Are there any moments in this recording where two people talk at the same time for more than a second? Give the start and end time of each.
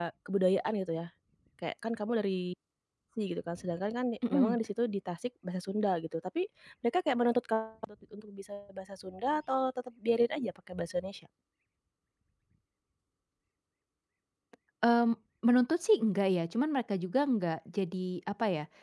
none

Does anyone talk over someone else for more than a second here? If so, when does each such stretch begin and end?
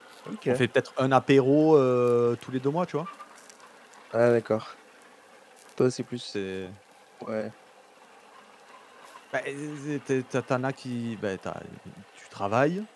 none

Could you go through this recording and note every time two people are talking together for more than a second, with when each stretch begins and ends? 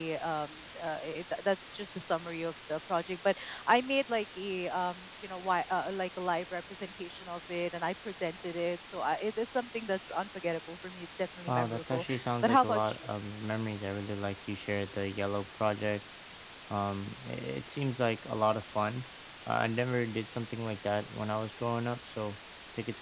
11.5-13.1

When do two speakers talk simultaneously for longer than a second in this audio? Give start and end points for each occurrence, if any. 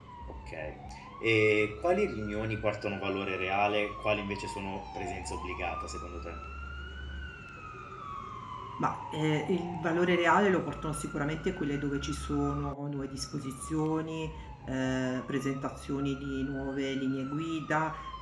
none

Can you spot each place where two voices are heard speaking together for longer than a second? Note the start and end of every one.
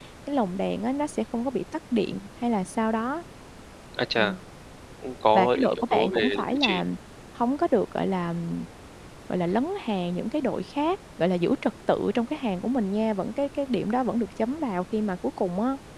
5.3-6.8

